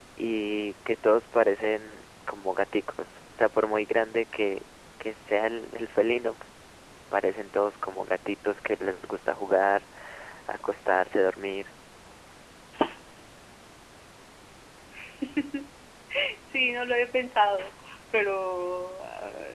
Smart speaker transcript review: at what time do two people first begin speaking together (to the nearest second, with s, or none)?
none